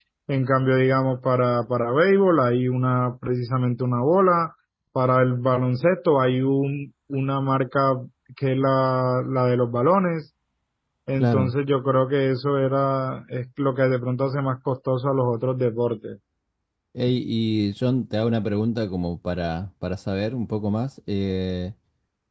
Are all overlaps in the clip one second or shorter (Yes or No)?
Yes